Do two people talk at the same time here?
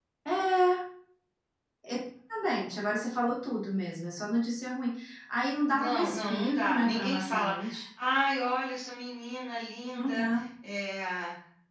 Yes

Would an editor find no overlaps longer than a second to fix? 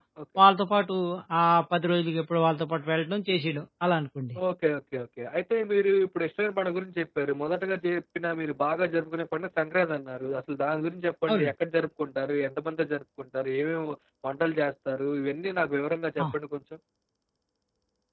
Yes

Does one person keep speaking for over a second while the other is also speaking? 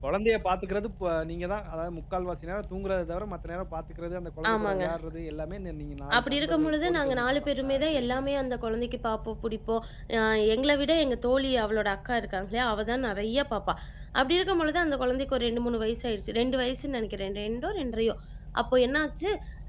Yes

